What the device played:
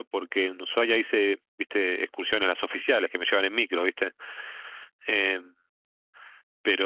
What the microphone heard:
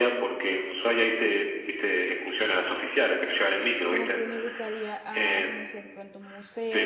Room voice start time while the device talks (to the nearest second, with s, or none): 4 s